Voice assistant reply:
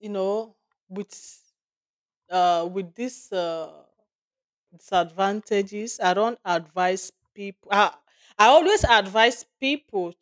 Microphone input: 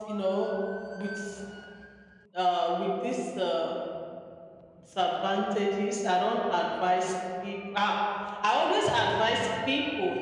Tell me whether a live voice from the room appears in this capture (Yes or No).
No